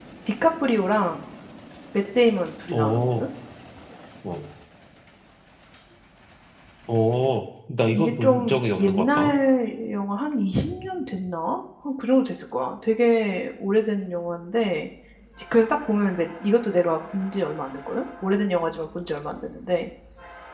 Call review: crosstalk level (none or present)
present